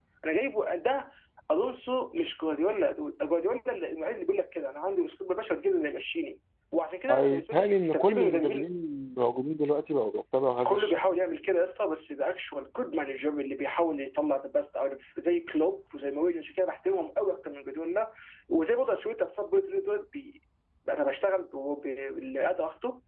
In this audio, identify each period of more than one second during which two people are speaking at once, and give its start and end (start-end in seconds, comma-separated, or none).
7.1-8.7